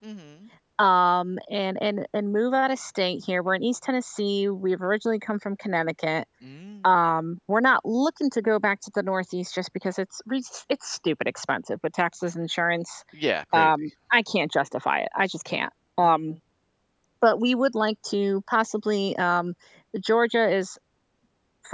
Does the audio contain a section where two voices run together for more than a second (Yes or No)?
No